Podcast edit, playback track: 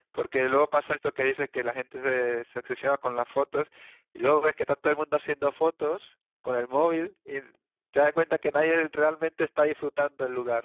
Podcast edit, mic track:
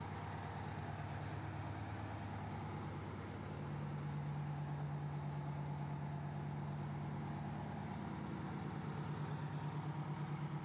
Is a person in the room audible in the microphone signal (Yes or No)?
No